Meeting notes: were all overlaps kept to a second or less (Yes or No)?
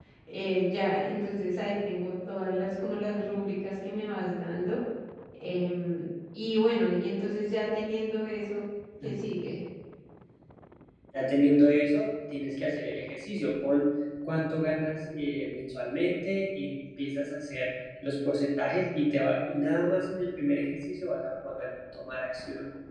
Yes